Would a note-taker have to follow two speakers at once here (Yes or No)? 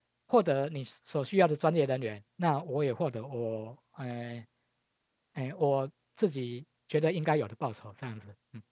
No